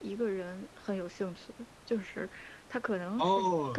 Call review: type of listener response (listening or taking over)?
taking over